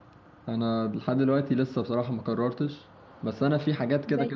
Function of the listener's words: listening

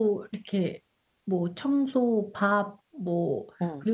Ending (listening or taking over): listening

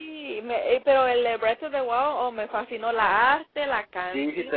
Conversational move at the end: taking over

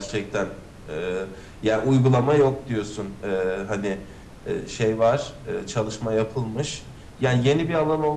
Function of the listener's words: listening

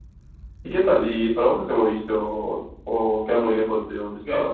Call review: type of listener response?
taking over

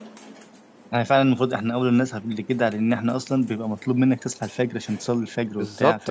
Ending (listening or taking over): taking over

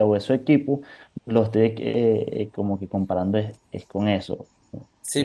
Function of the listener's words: taking over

